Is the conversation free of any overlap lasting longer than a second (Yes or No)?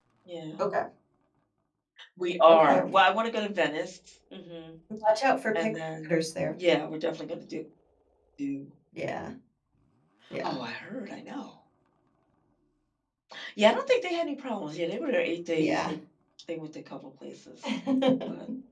Yes